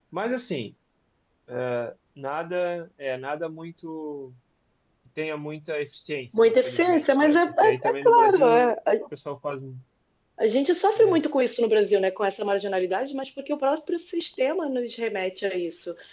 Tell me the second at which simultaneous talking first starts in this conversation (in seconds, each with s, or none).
6.3 s